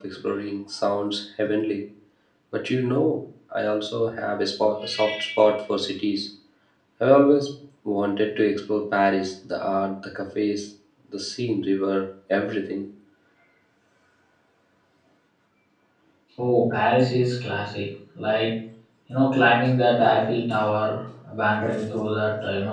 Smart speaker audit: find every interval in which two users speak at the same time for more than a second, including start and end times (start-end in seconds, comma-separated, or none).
none